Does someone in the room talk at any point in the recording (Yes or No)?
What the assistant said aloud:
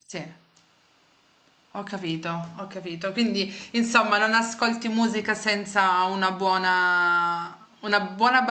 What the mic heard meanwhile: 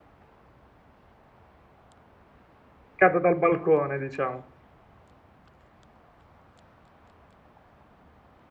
Yes